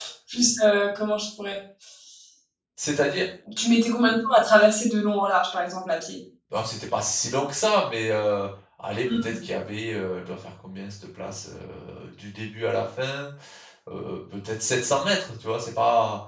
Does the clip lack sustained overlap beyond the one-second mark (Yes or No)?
Yes